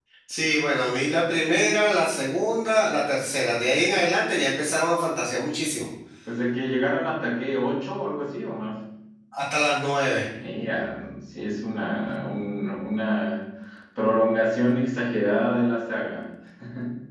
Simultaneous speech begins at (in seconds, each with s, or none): none